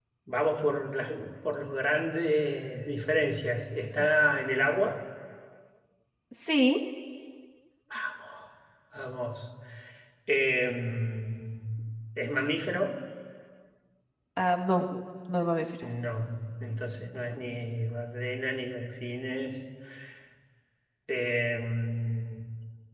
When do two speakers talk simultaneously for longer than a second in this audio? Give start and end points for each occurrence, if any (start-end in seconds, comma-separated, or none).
none